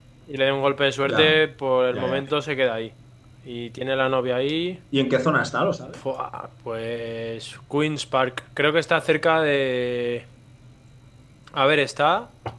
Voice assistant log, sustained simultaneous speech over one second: none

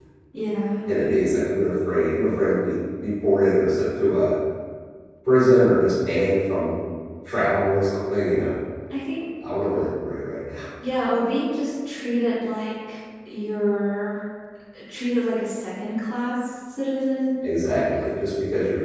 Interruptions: none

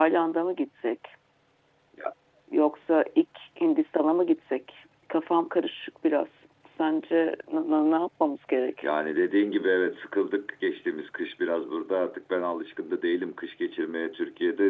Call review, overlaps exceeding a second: none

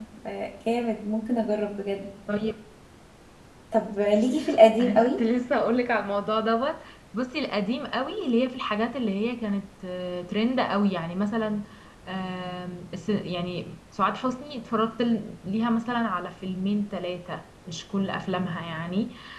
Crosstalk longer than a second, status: none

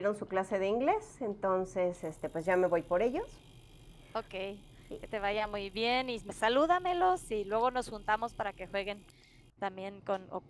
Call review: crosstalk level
none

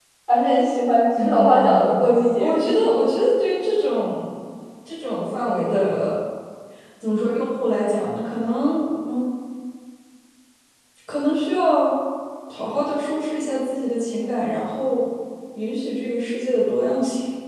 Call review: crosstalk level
present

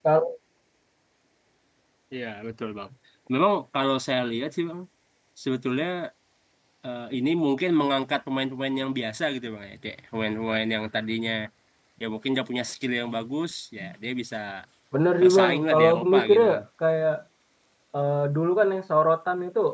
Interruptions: present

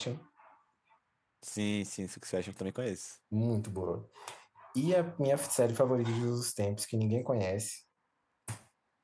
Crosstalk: none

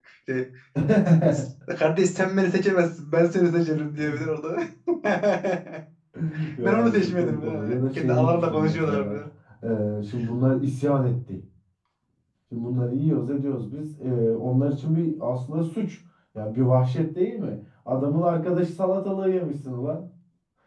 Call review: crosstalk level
present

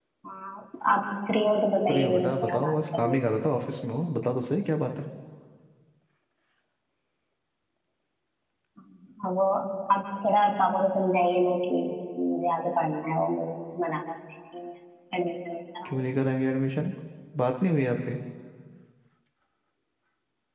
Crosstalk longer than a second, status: present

